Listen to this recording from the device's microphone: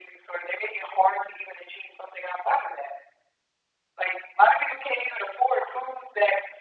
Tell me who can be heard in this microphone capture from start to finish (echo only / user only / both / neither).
echo only